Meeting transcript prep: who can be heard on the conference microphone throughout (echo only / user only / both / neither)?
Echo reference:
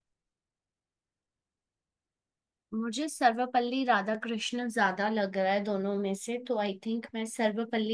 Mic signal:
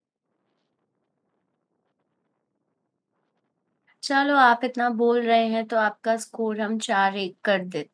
user only